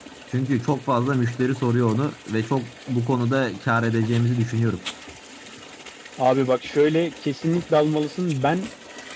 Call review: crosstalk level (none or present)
none